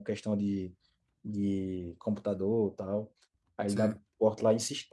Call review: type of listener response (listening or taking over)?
listening